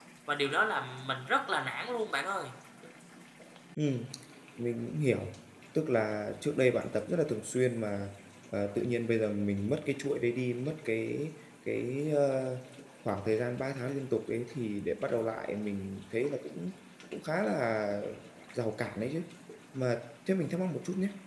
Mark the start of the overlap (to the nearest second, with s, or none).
none